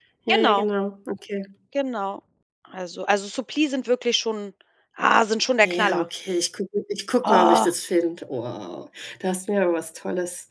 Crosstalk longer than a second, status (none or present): none